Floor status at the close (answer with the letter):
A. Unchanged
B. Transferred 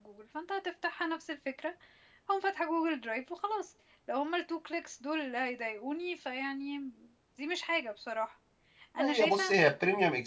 B